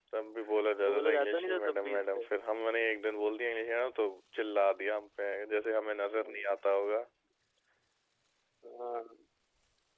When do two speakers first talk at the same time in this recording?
0.9 s

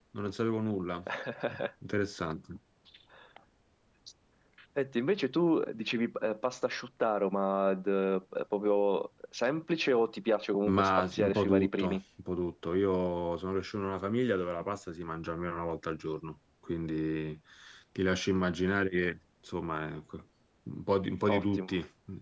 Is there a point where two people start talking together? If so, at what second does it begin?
10.7 s

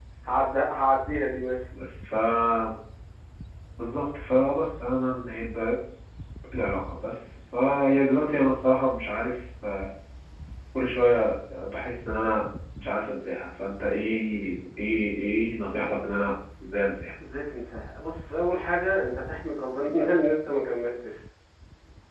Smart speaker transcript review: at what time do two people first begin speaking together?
none

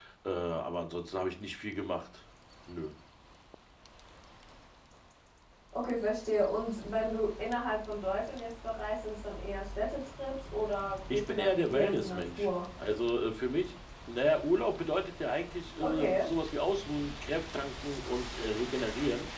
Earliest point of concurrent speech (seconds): 11.1 s

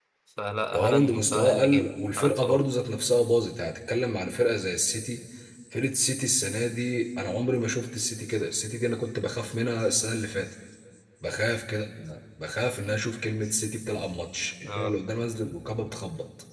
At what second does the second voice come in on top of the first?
0.7 s

